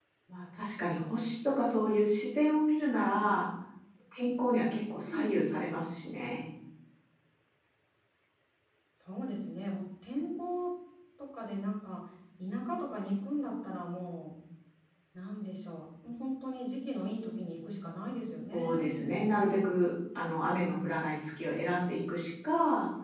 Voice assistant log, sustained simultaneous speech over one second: none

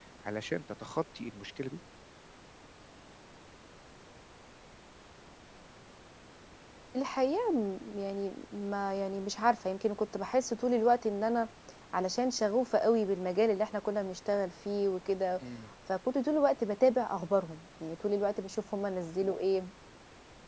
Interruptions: none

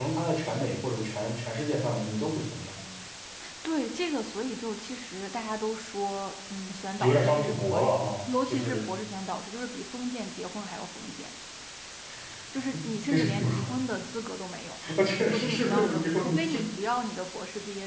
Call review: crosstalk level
present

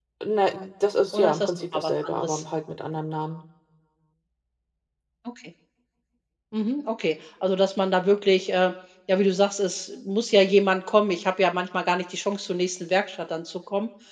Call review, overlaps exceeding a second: present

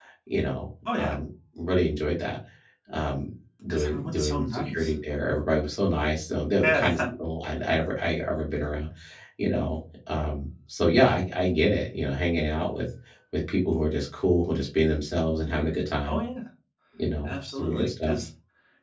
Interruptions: present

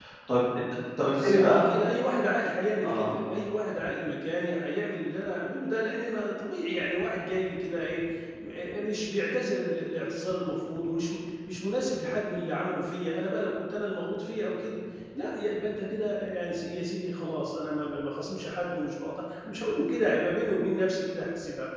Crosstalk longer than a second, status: none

